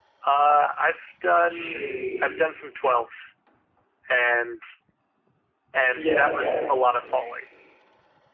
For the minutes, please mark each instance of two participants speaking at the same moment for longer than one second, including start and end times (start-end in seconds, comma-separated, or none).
5.9-7.3